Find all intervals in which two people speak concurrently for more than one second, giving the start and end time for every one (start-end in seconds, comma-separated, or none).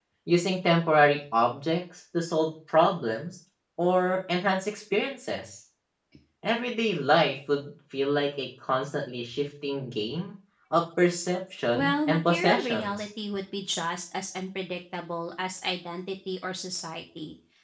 11.7-13.0